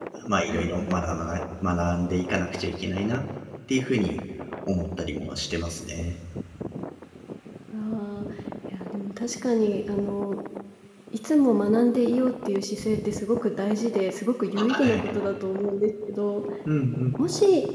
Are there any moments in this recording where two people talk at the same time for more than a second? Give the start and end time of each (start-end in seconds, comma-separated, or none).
none